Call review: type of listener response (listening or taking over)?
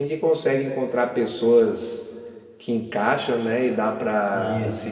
listening